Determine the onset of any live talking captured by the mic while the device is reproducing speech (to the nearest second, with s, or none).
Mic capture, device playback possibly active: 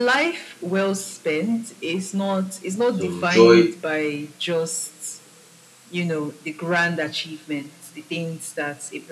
3 s